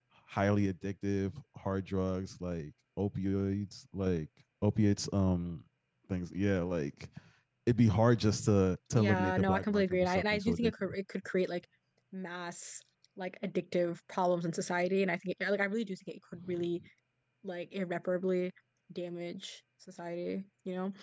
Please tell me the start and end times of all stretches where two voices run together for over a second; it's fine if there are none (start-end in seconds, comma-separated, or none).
8.9-10.9